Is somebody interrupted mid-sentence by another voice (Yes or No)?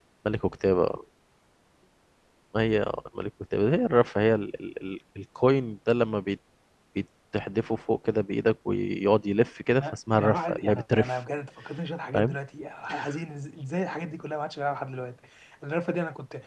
Yes